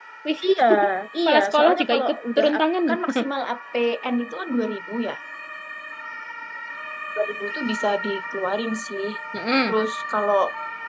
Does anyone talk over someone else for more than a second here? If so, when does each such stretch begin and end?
1.3-2.5

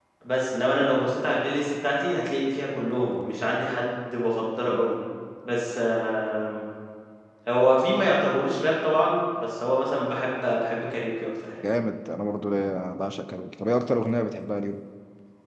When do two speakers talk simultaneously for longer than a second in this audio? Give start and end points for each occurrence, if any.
none

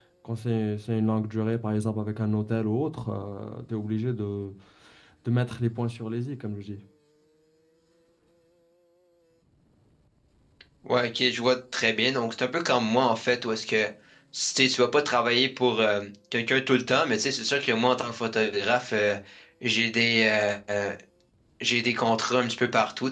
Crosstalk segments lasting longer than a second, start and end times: none

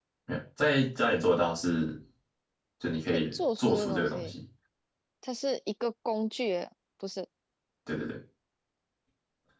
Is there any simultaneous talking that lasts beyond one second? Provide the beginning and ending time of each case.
3.1-4.3

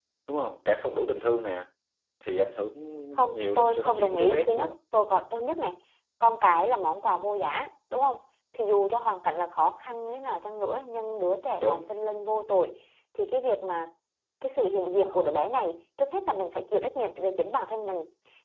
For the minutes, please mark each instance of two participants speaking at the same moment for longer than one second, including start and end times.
3.3-4.8

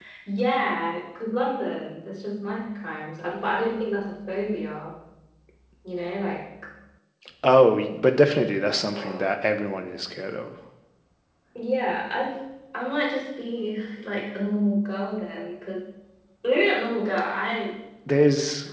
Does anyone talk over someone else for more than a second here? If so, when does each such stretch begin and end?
none

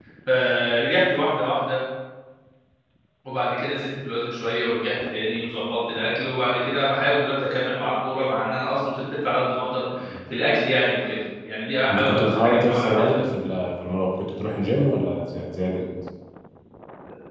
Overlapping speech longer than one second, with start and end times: 11.9-13.2

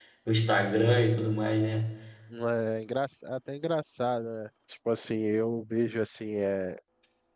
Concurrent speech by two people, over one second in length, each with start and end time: none

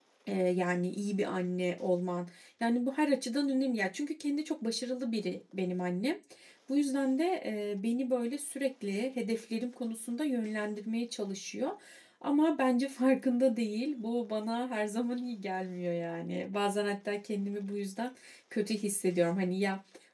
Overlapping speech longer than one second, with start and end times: none

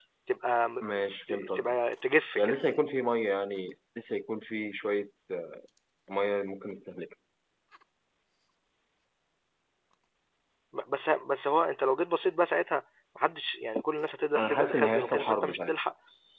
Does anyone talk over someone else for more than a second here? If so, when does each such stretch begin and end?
14.4-15.7

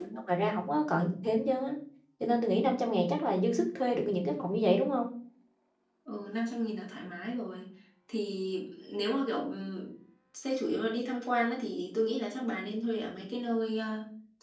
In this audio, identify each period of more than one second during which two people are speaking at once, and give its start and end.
none

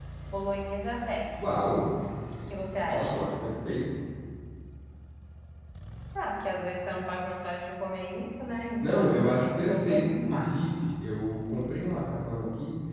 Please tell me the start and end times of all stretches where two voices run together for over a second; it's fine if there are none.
8.8-10.6

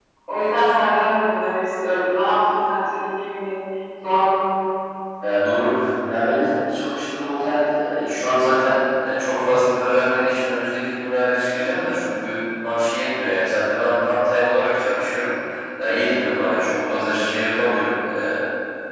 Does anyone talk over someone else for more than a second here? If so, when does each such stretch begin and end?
none

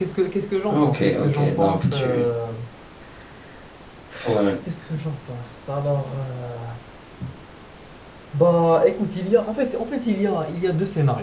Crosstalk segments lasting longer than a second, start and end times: 0.7-2.2

